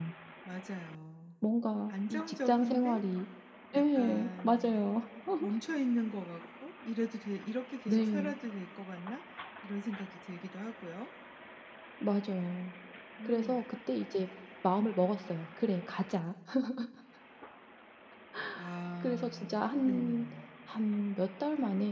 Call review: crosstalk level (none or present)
present